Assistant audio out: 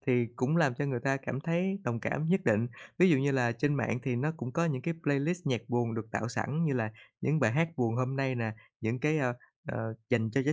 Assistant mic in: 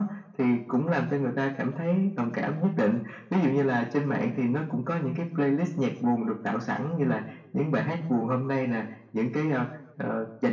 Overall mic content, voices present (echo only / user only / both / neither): echo only